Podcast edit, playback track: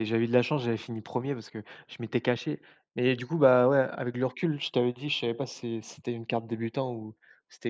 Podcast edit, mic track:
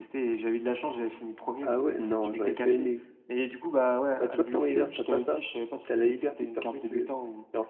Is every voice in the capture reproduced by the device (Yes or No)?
No